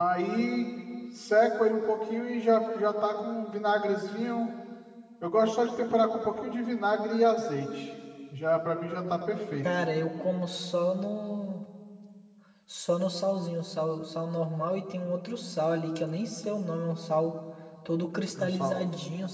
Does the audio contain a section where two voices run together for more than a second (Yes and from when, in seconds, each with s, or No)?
No